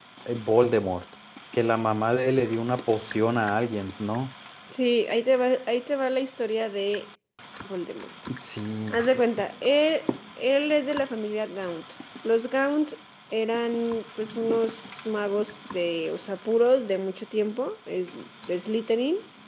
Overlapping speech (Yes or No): No